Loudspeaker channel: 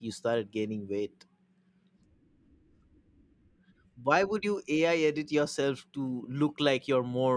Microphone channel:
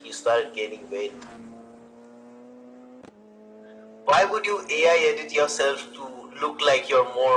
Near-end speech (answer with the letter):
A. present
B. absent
B